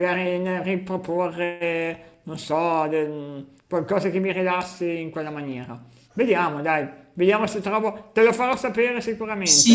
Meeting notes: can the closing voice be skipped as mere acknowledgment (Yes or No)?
No